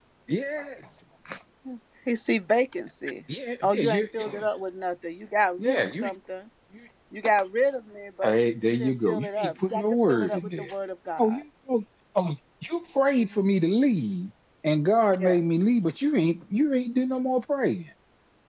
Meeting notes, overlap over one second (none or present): present